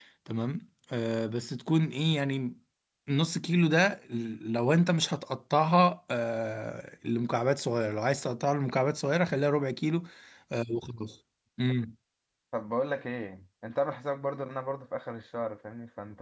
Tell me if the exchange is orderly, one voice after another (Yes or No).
Yes